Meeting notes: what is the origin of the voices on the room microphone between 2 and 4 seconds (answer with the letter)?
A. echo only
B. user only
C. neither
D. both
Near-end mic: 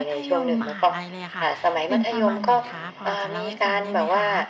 D